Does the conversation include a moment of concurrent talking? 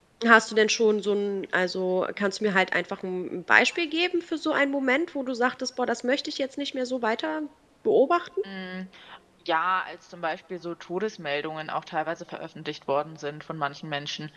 No

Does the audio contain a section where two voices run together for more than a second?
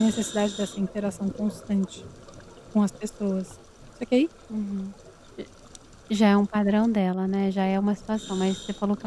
No

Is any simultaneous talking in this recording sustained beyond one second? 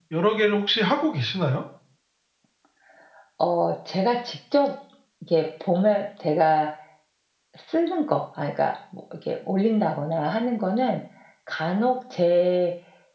No

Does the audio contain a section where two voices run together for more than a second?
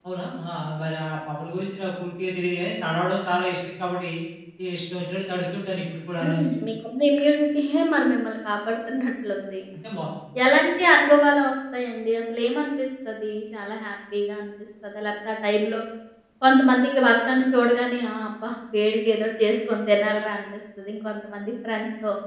No

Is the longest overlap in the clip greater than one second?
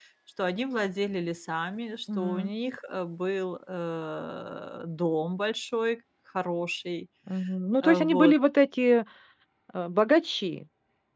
No

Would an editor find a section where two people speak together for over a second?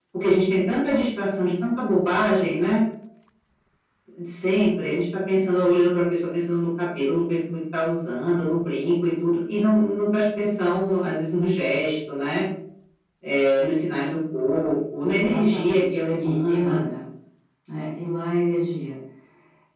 Yes, from 15.1 s

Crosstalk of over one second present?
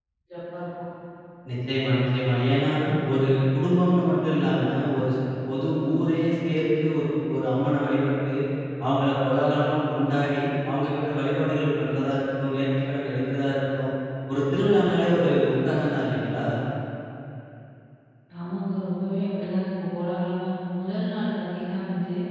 No

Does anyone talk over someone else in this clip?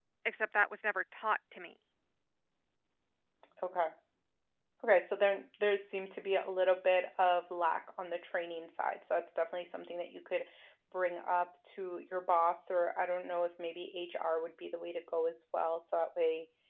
No

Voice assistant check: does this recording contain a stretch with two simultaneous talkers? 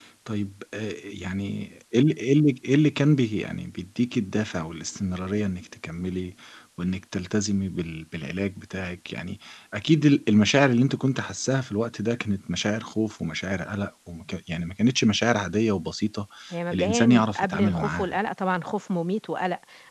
Yes, from 16.7 s

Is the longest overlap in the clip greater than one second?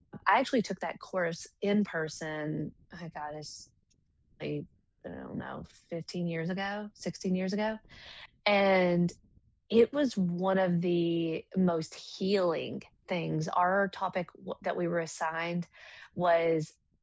No

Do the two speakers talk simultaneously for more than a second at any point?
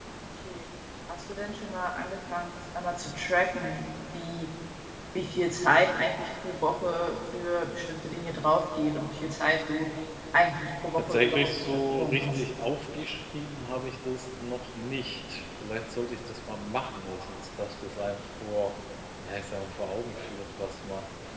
Yes, from 11.0 s

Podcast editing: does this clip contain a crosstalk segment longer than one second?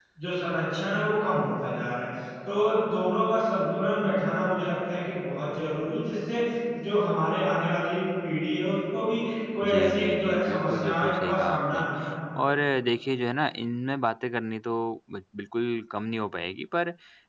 Yes, from 9.6 s

